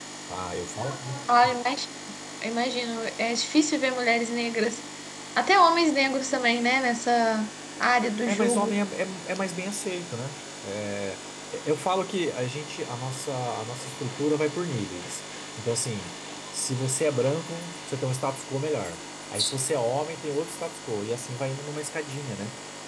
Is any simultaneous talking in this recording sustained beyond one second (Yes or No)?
No